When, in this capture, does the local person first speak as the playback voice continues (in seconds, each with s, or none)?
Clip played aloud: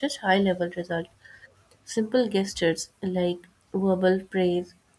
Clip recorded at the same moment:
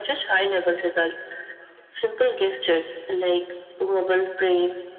none